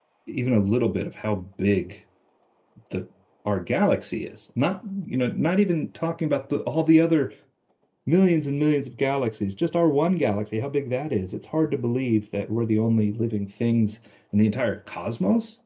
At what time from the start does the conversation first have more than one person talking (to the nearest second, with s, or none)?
none